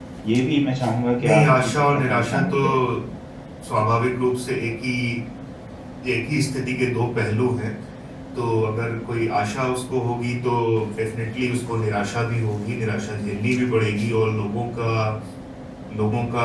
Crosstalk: present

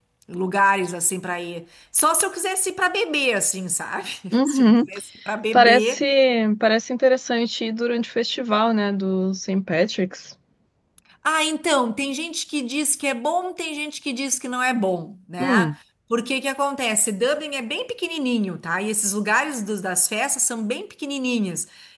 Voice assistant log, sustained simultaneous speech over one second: none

